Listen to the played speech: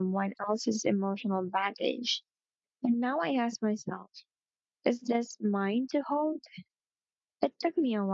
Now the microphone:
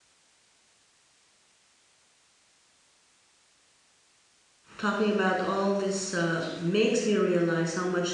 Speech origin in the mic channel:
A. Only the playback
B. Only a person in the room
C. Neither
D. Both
B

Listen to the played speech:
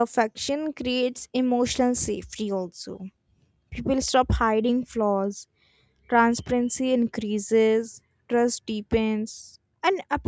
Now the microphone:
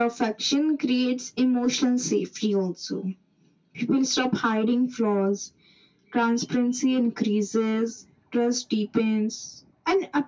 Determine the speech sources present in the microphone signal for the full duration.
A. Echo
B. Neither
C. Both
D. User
A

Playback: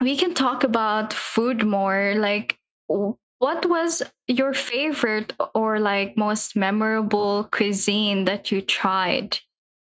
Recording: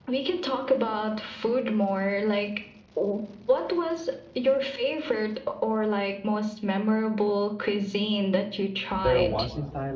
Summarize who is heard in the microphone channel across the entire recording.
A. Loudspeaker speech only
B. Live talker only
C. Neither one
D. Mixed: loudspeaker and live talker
D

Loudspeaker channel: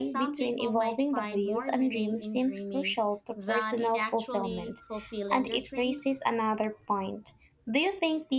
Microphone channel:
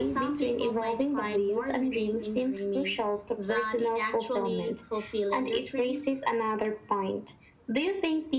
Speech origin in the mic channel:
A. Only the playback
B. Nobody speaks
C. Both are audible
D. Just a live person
A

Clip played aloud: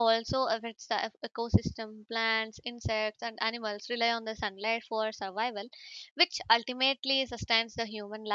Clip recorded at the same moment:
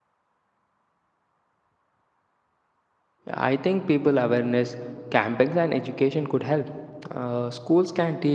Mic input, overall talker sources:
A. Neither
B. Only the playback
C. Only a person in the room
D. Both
C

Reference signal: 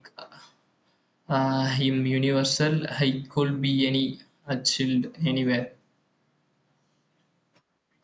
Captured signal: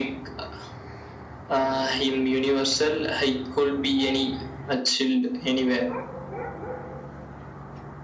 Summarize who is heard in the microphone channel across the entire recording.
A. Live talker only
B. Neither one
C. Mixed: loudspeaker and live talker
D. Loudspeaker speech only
D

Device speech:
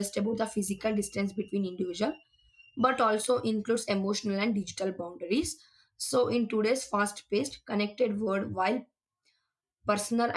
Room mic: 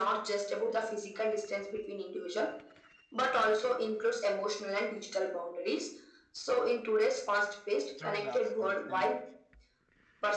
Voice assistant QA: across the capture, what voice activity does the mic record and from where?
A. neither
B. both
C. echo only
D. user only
B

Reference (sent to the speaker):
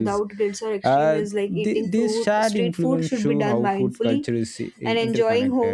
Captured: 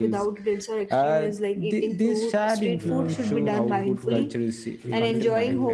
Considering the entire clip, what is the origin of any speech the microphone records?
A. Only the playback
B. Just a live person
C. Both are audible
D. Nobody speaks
C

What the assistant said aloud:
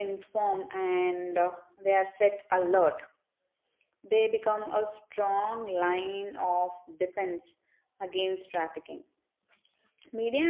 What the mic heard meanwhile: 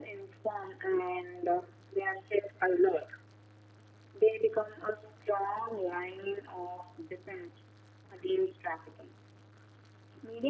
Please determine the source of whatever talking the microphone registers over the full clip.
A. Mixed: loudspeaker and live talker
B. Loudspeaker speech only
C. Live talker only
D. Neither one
B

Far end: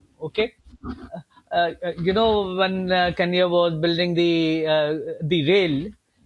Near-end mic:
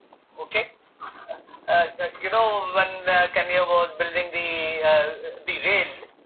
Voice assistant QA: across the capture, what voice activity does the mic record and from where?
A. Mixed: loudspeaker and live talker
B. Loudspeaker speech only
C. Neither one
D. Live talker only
B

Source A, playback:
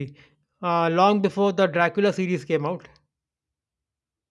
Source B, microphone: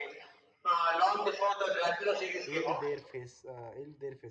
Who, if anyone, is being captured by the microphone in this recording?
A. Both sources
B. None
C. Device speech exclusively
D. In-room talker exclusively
A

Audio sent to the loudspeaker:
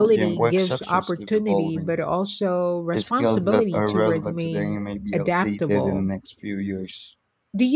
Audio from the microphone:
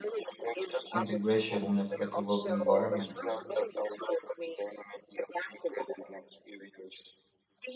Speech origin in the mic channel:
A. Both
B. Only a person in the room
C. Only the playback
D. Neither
A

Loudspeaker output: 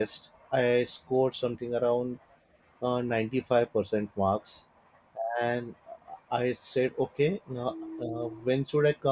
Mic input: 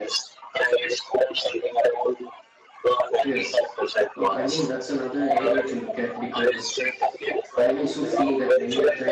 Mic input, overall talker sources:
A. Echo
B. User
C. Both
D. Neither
C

